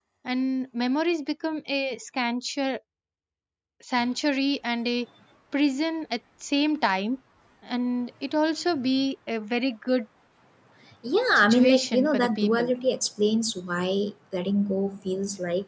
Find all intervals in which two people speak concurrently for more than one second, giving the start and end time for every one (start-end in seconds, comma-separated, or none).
11.3-12.7